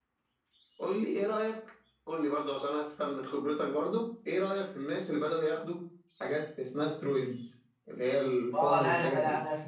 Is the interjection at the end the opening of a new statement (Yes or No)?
Yes